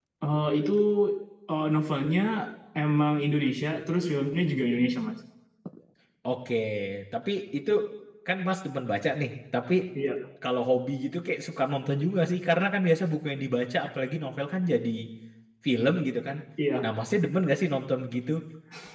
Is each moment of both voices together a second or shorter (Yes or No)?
Yes